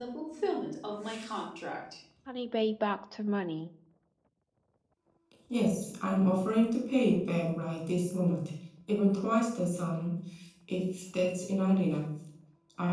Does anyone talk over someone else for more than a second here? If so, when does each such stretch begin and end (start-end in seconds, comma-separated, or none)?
none